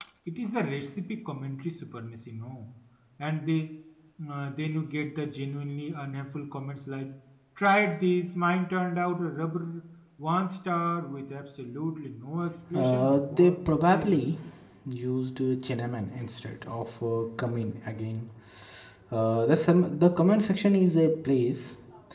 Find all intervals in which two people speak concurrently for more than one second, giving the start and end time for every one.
12.7-14.2

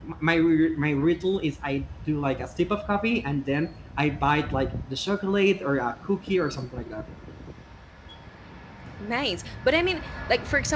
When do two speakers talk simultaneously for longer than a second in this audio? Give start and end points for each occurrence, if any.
none

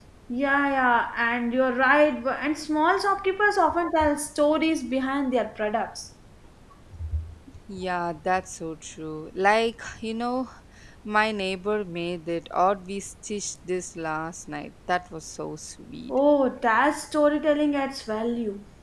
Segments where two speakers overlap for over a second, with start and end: none

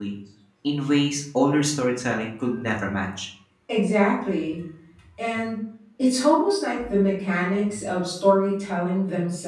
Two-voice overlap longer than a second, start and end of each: none

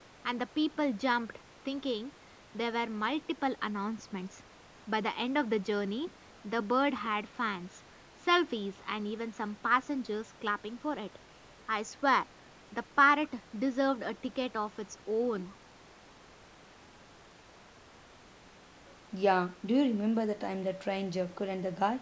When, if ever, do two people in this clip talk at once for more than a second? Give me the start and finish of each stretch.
none

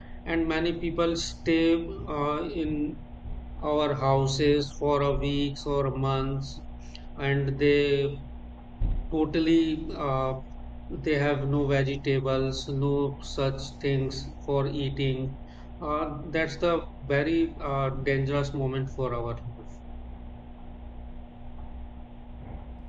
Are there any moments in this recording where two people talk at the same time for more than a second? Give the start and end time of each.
none

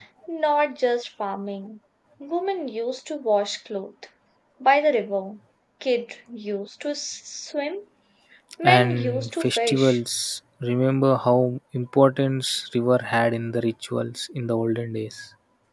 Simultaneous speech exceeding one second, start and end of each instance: 8.6-10.0

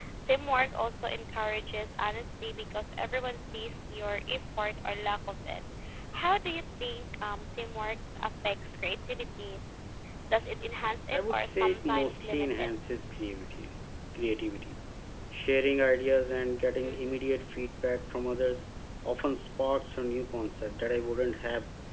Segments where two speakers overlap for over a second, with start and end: 11.1-12.7

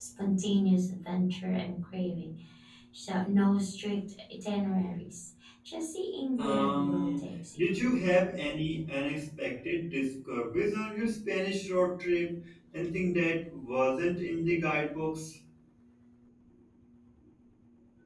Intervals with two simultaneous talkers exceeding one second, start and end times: 6.4-7.6

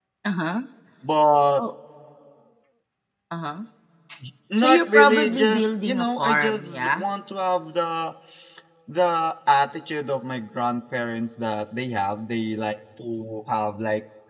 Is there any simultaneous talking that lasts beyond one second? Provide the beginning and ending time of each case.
4.6-7.0

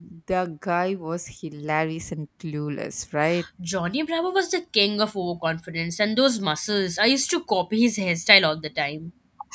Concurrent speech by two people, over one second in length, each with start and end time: none

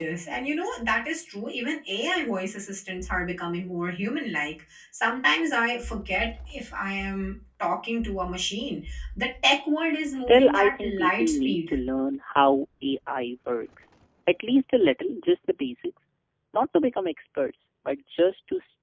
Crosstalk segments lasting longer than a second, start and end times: 10.1-11.6

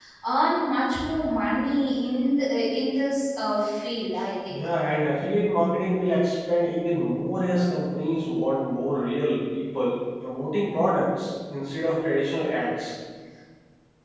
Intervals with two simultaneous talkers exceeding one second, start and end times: none

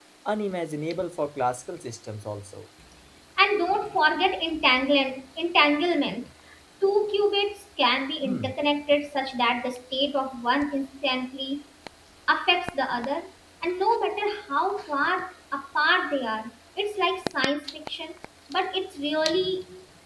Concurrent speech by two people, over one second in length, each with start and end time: none

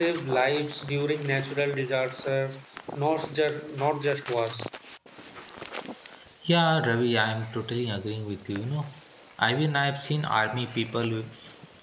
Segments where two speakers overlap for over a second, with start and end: none

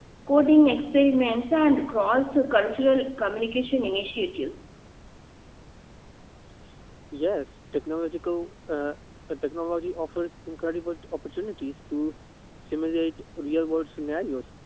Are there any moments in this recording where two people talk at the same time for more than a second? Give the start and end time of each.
none

